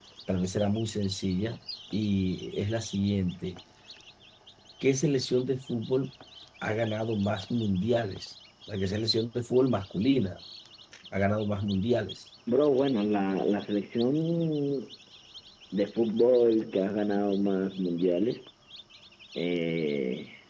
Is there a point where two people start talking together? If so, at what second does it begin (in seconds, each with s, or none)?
none